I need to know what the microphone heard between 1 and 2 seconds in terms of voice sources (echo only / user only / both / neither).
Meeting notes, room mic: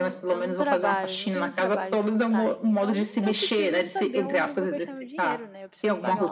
both